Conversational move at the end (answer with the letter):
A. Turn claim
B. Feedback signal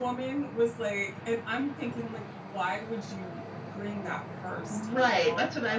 A